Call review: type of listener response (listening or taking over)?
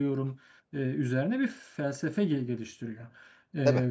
listening